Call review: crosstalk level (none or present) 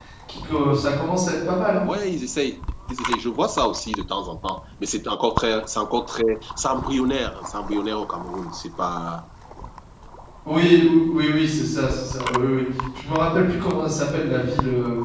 none